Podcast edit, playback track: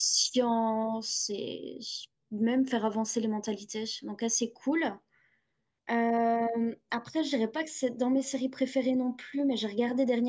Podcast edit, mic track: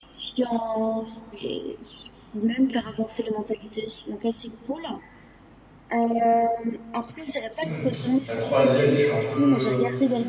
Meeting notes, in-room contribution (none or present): present